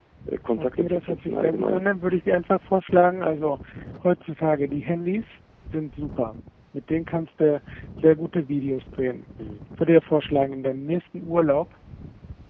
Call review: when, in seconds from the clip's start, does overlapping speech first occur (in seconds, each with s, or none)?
0.6 s